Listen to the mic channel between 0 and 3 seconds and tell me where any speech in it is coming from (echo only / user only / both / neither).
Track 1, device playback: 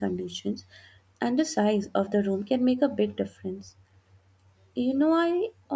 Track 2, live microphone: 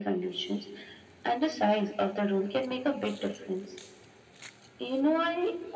echo only